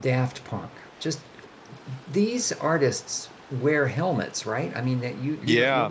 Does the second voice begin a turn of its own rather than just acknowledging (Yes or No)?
Yes